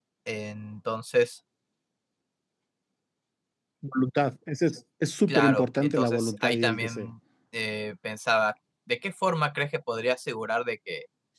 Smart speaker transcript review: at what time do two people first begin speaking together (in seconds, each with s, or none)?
5.3 s